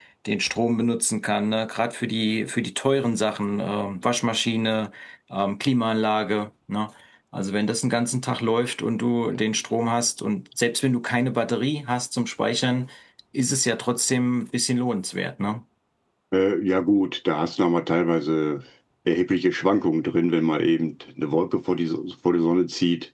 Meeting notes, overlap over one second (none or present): none